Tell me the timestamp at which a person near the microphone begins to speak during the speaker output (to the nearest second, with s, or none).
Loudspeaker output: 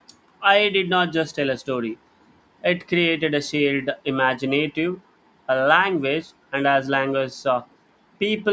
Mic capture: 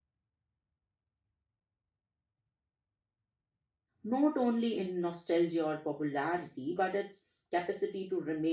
4 s